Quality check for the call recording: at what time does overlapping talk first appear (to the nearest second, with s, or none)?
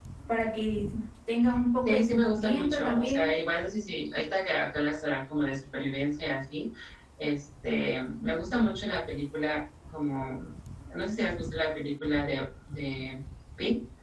2 s